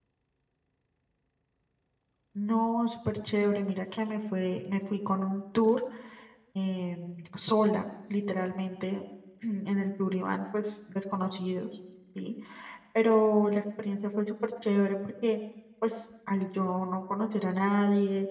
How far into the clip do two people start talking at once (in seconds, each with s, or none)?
none